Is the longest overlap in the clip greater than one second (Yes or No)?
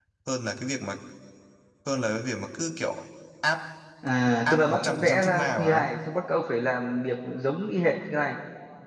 Yes